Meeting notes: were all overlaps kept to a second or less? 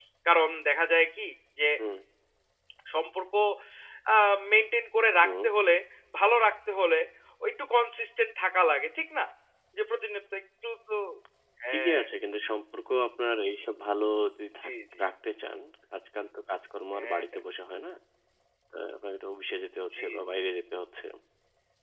Yes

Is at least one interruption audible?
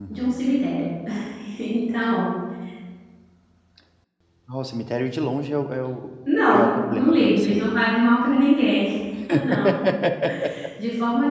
Yes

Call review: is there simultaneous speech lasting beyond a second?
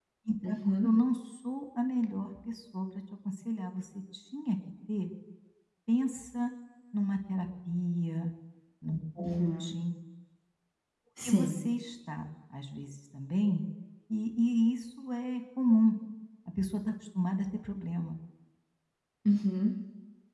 No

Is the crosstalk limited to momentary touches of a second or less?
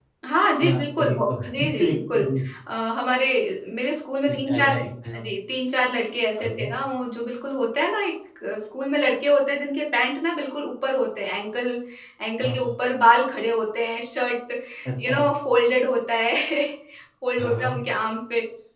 No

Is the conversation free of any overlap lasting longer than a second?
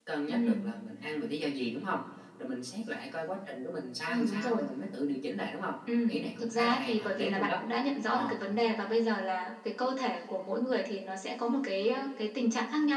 No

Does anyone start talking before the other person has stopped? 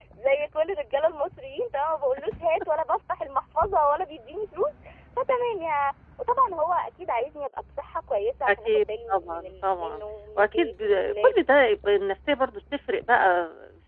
Yes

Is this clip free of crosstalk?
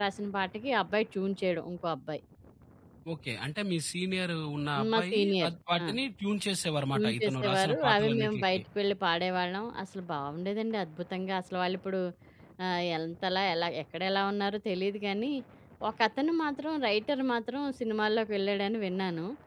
No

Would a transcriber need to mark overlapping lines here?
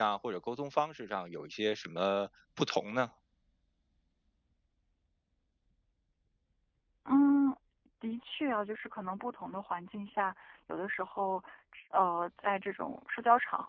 No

